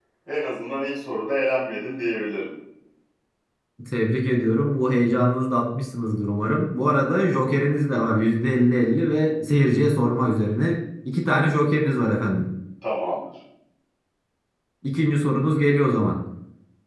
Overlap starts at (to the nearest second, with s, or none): none